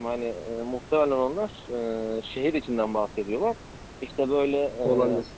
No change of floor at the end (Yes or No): Yes